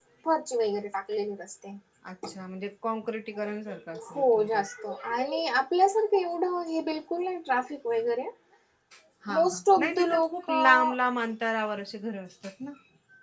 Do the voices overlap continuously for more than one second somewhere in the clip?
Yes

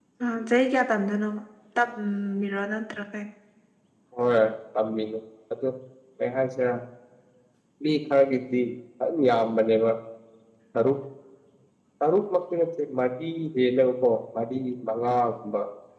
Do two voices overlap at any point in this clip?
No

